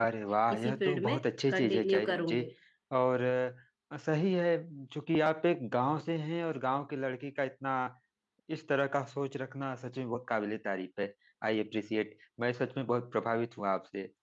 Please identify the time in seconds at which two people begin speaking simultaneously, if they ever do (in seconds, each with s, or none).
0.5 s